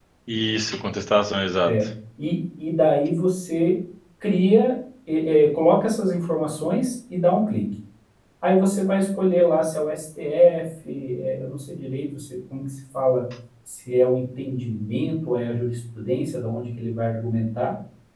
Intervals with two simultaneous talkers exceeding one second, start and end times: none

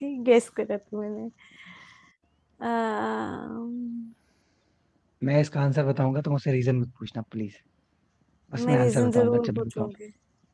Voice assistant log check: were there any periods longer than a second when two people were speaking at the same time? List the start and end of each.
8.6-9.9

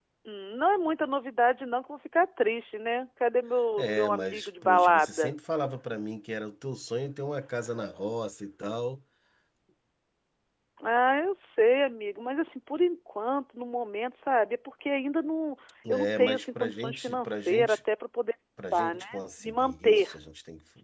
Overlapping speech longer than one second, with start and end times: 3.8-5.3, 15.9-17.8, 18.7-20.2

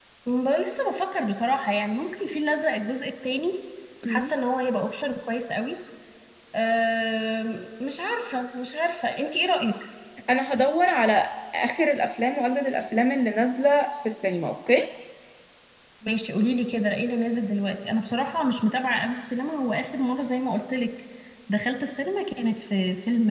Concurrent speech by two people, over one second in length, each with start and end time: none

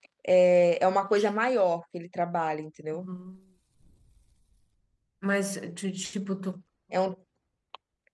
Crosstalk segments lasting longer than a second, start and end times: none

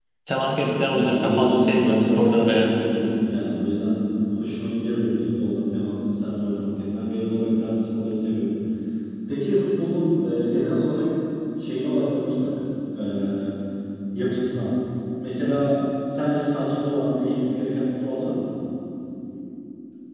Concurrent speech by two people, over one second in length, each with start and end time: 0.9-2.7

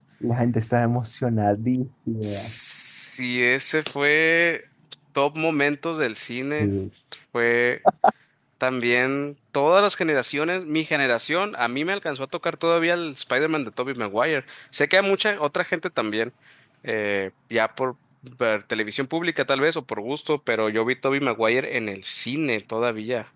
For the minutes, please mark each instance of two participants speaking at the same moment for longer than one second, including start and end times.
none

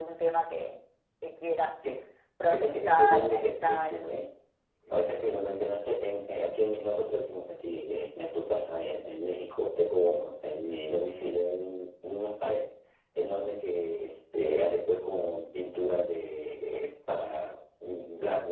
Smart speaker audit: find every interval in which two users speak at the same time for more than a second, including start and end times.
2.5-4.0

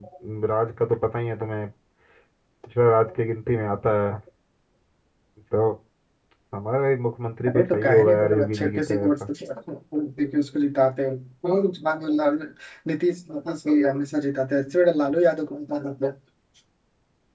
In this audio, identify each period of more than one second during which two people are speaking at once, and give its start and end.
7.5-9.1

